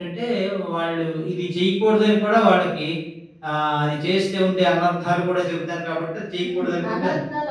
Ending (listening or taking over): taking over